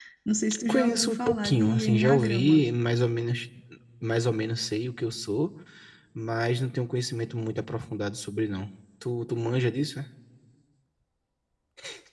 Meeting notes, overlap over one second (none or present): present